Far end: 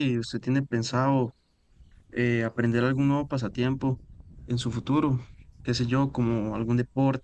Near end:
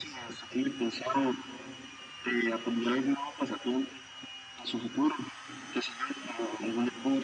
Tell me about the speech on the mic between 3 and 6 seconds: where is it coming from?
echo only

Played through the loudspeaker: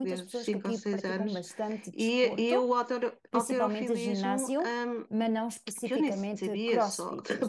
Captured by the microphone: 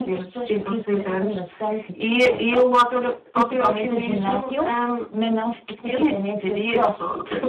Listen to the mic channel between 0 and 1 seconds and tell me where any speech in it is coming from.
echo only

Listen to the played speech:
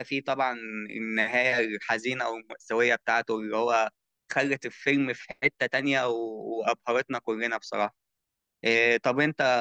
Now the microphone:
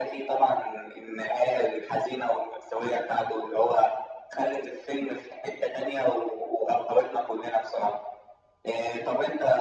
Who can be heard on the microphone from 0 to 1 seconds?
echo only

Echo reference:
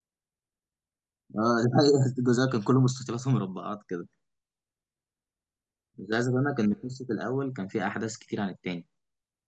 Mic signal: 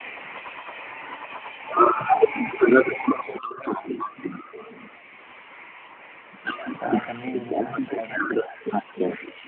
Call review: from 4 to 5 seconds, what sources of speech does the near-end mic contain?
echo only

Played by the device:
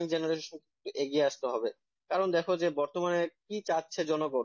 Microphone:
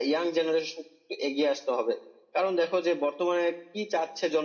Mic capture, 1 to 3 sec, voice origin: echo only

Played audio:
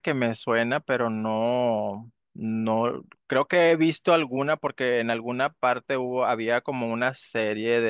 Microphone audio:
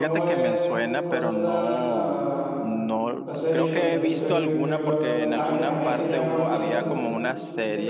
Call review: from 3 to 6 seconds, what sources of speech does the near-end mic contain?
both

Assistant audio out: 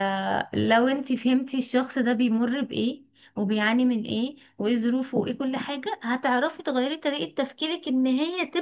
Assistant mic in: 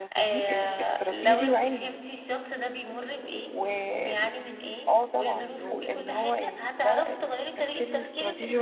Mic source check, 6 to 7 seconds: both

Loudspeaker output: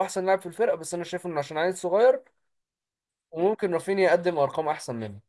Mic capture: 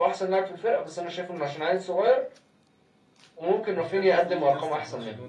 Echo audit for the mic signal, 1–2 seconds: echo only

